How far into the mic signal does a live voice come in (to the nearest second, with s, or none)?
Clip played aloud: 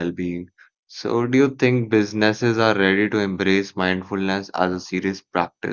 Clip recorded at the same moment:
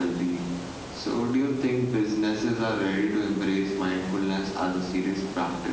none